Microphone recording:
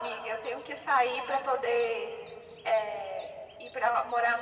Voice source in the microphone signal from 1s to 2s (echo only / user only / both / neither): echo only